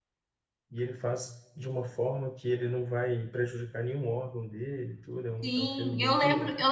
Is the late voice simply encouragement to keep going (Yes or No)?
No